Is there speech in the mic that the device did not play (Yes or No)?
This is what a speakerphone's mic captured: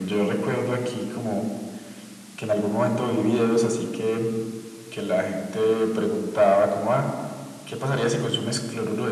No